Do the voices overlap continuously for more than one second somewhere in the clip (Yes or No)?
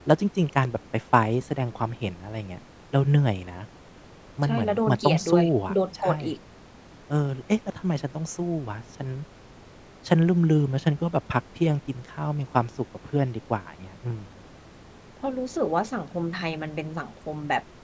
Yes